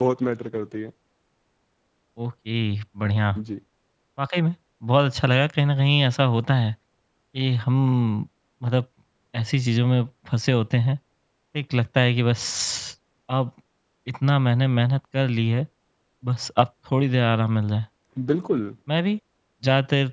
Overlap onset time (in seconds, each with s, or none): none